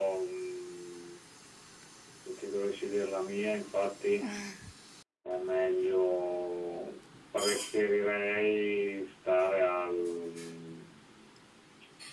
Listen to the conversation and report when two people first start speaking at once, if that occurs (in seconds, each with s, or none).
none